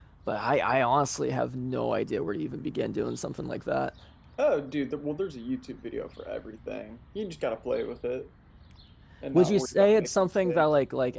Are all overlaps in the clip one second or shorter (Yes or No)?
No